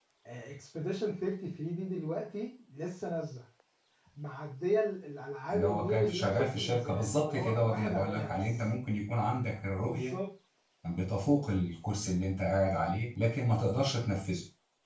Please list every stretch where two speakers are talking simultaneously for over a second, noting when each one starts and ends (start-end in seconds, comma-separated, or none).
5.5-8.6